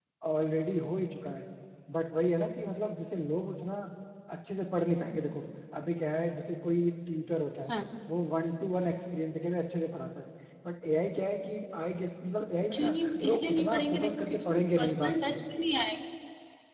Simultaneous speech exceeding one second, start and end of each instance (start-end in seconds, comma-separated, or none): 12.7-15.4